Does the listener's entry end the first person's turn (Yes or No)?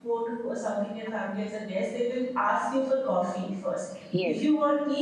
No